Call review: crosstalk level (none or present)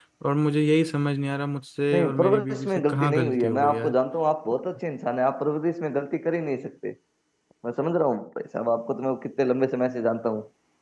present